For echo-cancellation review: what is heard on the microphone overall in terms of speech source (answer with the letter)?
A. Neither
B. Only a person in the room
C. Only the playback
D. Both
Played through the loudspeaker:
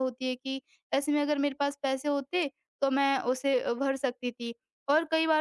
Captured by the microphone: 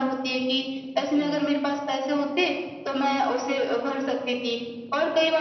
D